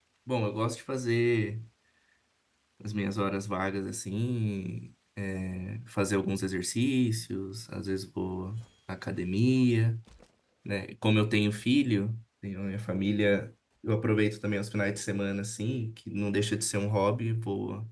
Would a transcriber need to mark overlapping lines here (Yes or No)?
No